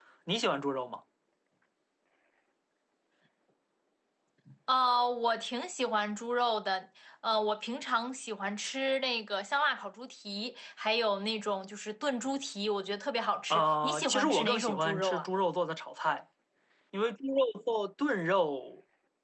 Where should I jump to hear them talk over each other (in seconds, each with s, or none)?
13.5 s